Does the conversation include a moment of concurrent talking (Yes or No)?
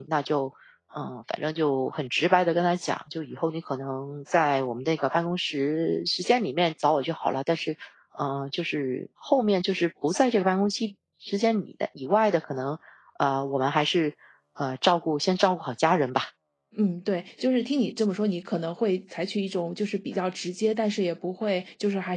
No